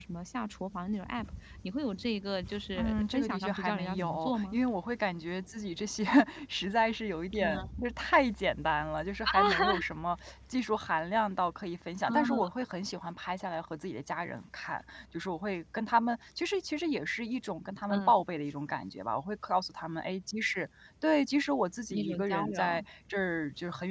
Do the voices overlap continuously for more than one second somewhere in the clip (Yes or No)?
Yes